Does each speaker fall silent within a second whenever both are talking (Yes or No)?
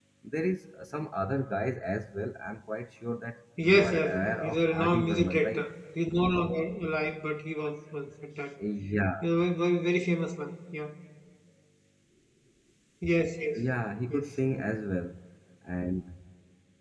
No